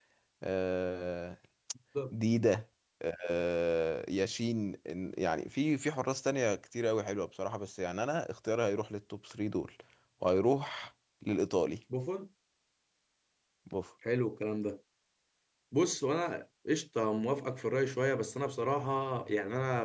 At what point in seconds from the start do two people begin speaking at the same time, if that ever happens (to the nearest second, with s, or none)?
none